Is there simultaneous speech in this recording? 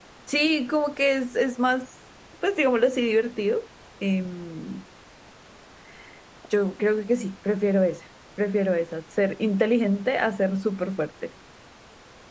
No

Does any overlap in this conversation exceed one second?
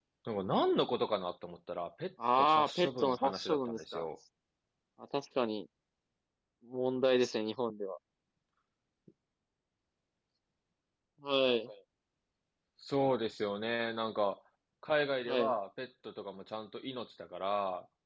Yes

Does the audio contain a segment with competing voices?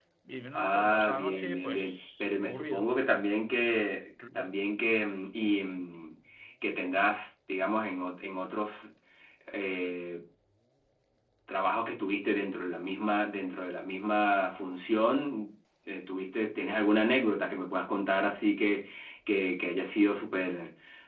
Yes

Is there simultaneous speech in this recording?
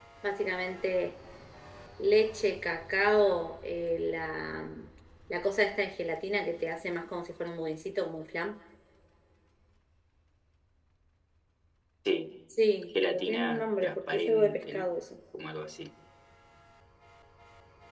Yes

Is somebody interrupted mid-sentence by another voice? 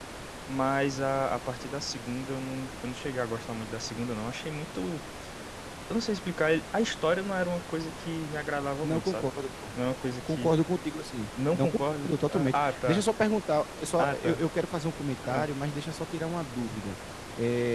Yes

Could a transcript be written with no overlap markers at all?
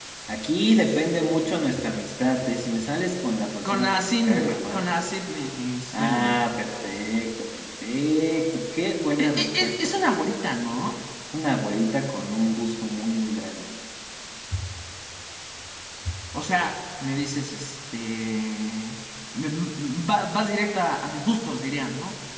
No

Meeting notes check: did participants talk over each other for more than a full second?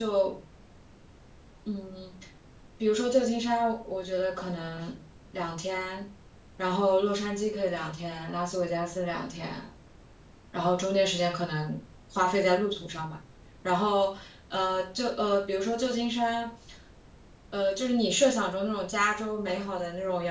No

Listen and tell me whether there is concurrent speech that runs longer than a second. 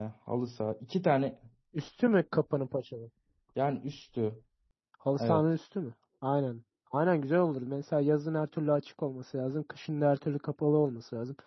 No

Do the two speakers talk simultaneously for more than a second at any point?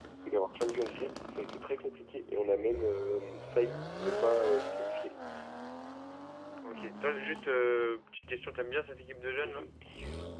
No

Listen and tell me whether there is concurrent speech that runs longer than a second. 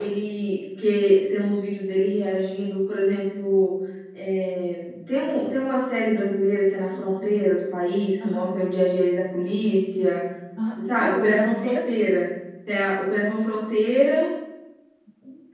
Yes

